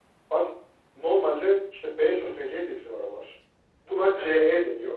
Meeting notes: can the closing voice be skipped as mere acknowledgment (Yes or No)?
Yes